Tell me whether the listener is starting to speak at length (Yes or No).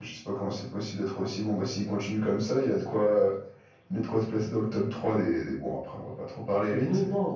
Yes